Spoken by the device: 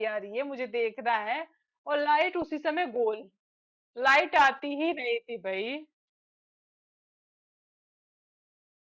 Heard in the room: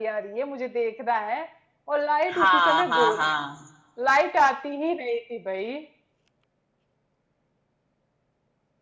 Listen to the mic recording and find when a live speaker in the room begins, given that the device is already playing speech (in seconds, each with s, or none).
2.4 s